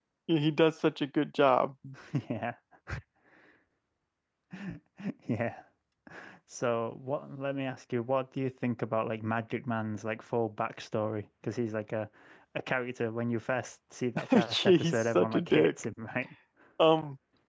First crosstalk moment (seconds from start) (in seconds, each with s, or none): 14.3 s